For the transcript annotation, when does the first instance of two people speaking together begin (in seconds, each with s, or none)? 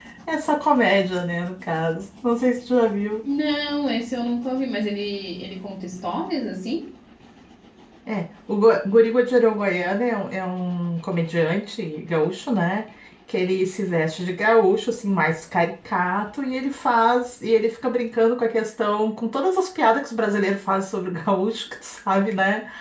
none